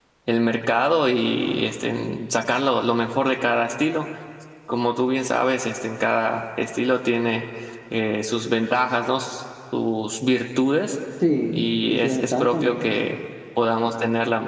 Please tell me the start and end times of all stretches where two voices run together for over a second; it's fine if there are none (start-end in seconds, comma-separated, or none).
11.5-12.8